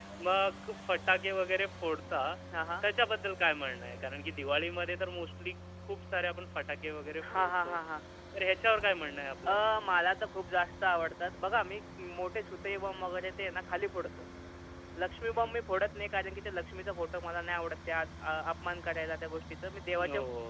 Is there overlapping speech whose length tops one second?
No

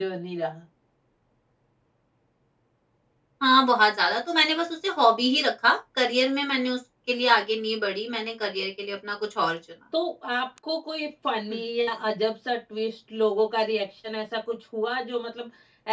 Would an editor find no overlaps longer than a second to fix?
Yes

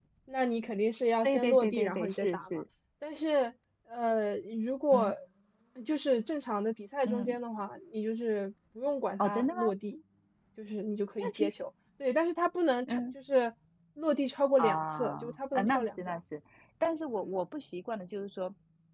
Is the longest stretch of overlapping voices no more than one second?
No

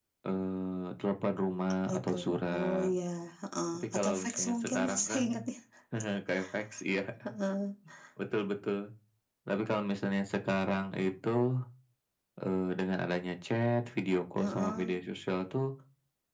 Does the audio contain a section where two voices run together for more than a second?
Yes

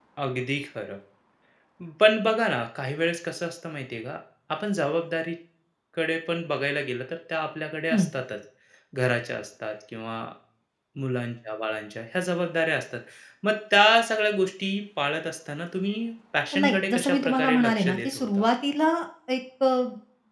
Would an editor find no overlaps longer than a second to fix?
No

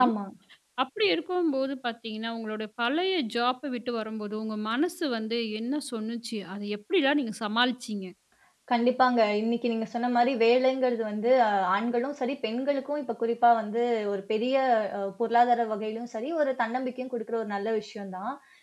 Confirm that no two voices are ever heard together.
Yes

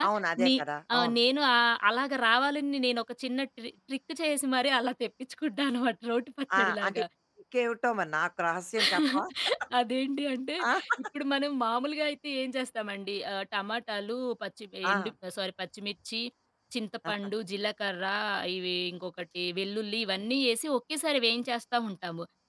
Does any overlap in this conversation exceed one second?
No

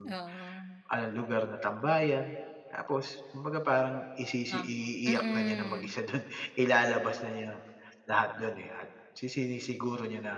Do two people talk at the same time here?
Yes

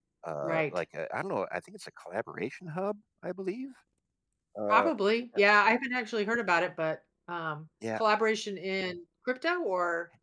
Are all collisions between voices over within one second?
Yes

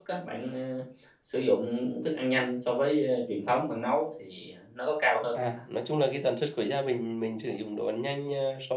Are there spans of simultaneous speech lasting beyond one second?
No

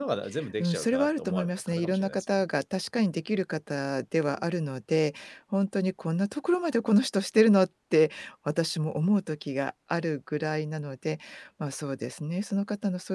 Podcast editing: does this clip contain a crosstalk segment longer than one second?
Yes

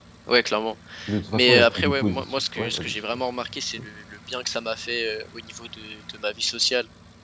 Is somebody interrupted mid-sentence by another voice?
Yes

